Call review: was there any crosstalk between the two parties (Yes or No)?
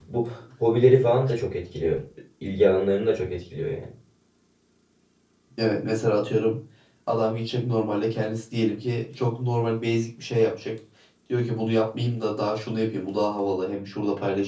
No